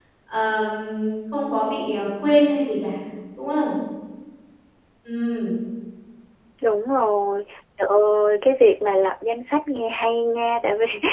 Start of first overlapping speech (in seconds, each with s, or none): none